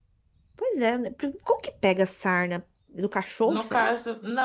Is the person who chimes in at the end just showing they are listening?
No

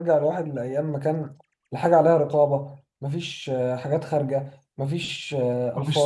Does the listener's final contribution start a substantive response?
No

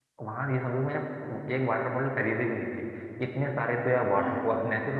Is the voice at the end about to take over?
No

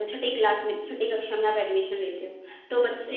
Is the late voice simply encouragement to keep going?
Yes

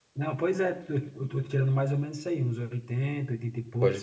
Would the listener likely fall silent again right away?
No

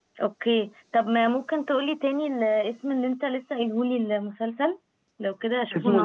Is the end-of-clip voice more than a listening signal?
Yes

